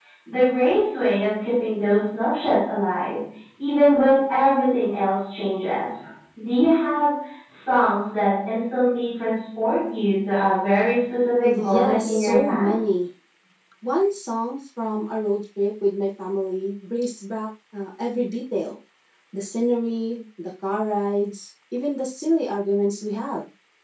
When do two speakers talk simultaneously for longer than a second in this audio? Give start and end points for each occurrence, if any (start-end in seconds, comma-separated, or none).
11.4-12.7